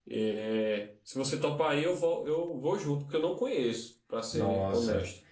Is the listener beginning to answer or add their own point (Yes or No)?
Yes